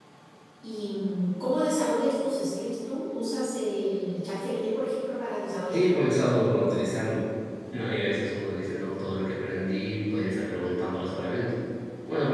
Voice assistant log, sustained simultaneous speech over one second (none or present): none